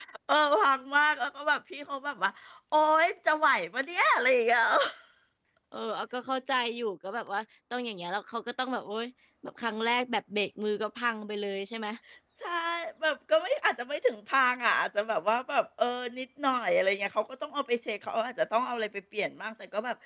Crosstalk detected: No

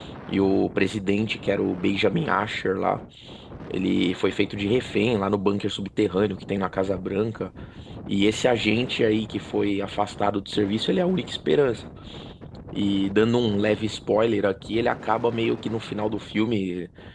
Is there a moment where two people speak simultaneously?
No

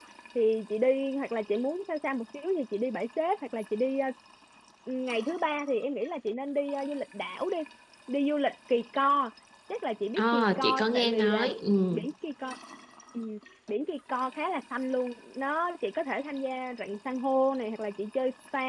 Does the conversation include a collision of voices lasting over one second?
Yes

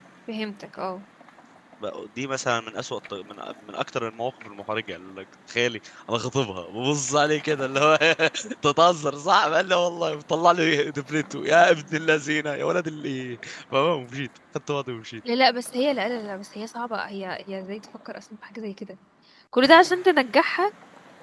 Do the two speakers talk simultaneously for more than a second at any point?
No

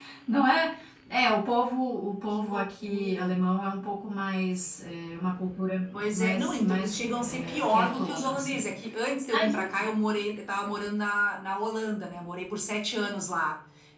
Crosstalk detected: Yes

